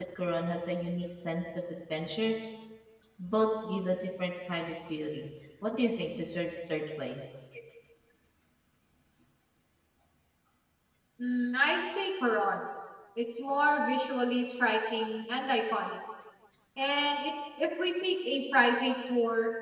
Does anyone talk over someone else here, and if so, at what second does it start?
none

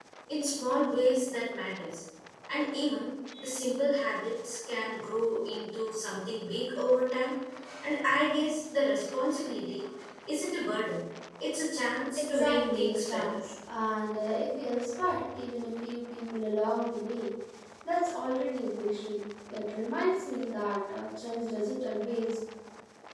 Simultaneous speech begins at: 12.2 s

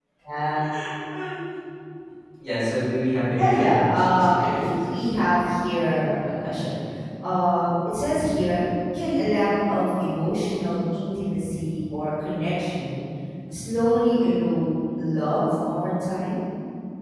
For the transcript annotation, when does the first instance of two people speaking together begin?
3.4 s

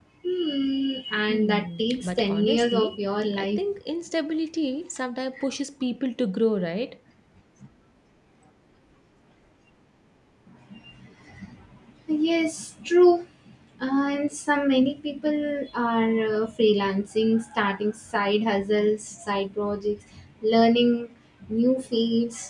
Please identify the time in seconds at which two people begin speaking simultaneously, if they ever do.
1.3 s

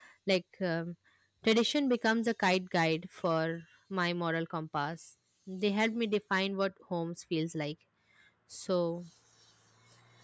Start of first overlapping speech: none

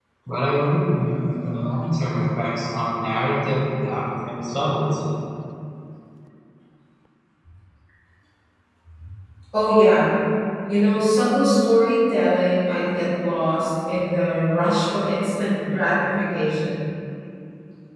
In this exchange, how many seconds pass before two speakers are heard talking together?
none

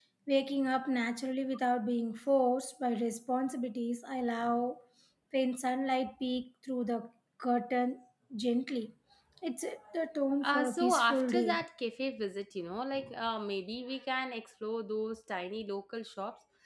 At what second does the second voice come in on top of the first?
10.4 s

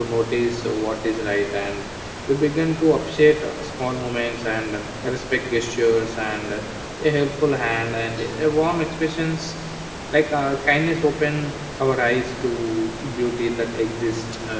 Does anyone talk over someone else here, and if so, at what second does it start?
none

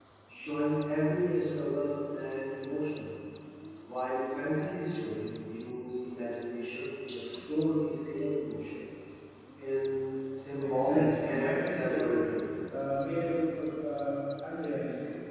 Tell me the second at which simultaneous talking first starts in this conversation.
10.6 s

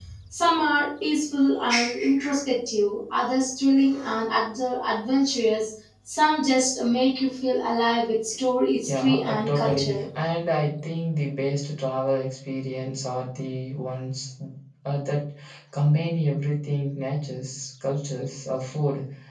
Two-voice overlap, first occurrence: 8.8 s

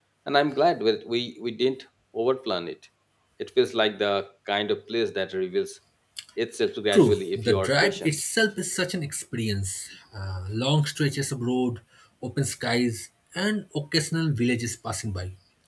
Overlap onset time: 6.9 s

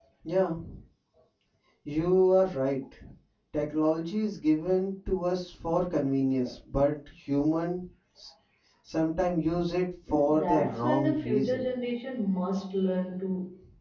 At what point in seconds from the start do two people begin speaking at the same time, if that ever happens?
10.1 s

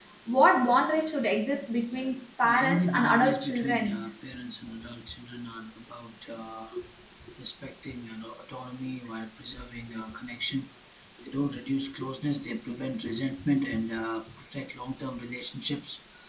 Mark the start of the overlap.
2.4 s

